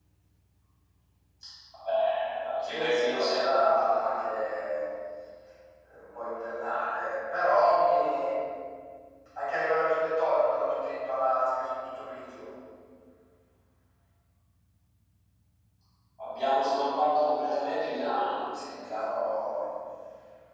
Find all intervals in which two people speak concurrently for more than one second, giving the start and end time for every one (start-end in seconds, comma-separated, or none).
2.6-3.9